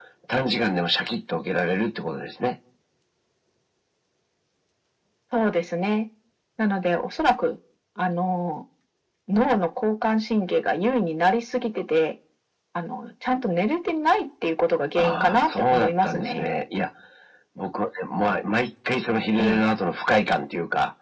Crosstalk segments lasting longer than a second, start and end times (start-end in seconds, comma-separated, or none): 15.0-16.5